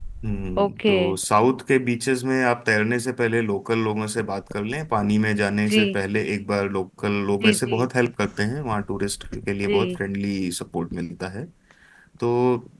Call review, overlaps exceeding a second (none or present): none